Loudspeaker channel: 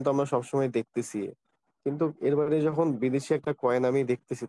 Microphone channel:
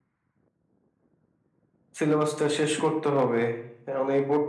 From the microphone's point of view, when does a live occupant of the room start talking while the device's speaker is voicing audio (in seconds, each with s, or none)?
2.0 s